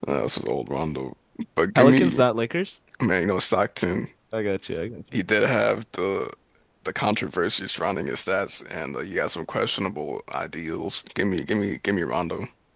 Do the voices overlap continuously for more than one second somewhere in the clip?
No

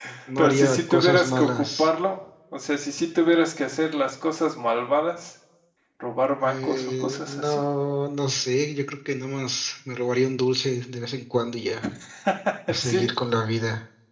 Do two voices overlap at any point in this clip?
Yes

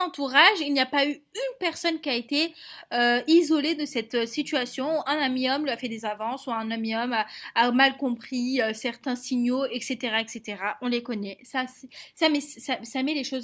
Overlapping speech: No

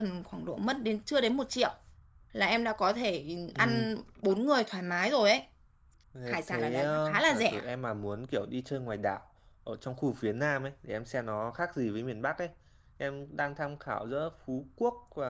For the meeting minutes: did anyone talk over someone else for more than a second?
Yes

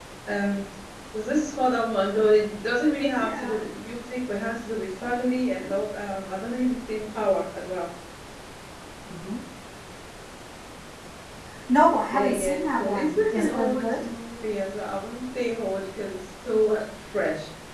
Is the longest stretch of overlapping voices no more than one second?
No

